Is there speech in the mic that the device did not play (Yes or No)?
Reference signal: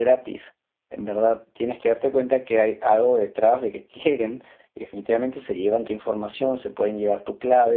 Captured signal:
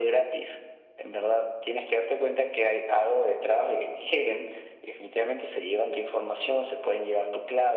No